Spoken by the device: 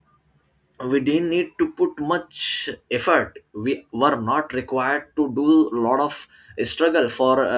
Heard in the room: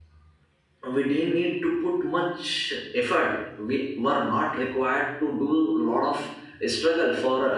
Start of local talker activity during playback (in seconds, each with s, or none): none